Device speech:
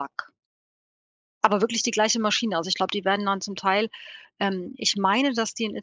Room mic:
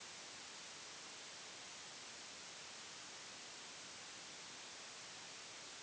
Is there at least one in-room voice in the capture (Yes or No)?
No